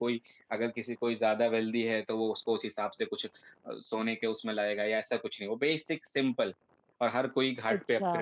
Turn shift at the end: Yes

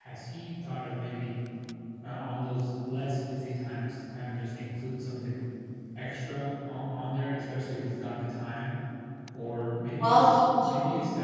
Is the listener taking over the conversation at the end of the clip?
No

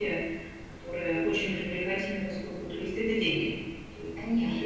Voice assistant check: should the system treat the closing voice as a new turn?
Yes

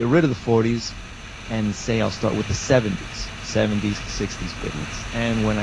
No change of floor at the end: Yes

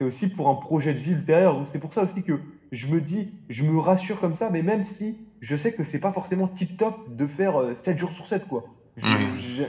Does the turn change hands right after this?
No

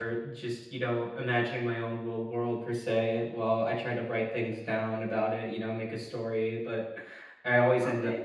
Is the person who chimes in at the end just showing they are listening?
Yes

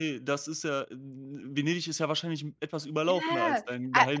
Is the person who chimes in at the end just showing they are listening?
No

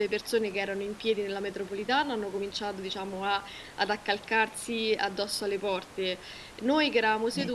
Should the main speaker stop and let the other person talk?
No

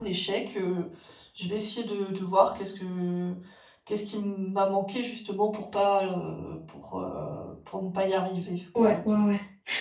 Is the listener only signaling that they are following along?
No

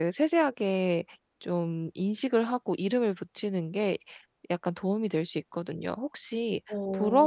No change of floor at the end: Yes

